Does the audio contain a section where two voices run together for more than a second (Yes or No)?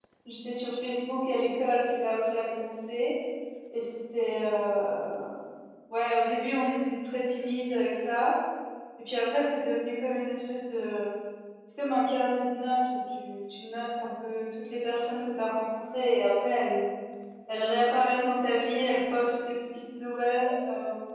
No